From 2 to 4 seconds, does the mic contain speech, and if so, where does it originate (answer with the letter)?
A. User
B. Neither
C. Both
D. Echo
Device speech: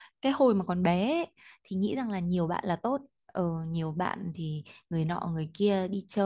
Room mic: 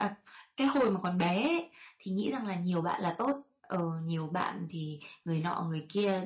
D